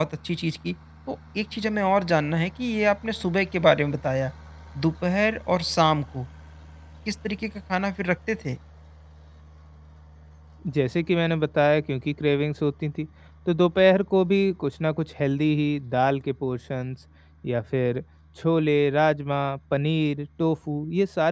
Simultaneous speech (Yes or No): No